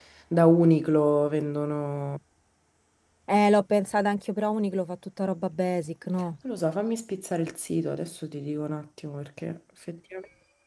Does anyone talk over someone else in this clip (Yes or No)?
No